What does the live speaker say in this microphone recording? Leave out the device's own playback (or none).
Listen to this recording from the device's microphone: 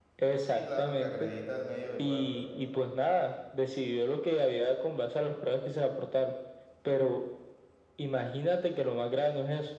Sí, claro, el que acredita el medio de prueba.